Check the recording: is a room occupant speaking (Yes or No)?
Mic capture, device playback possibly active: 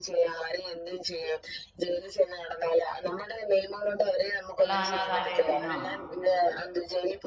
Yes